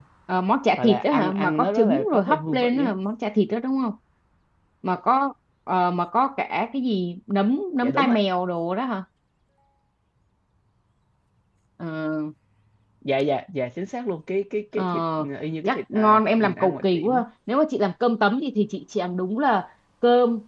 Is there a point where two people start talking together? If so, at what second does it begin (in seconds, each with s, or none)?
0.8 s